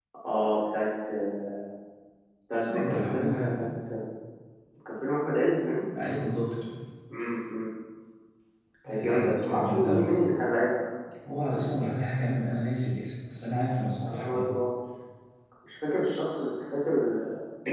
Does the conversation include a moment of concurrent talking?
Yes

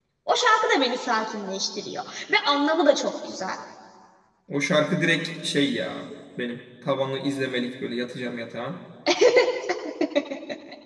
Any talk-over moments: No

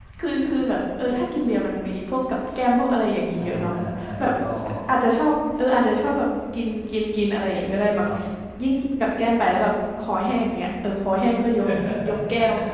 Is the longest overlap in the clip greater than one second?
No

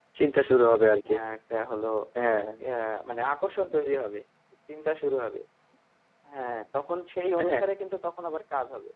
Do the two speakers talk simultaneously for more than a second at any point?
No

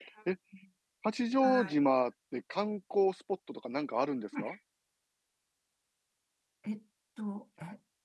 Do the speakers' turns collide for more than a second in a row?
No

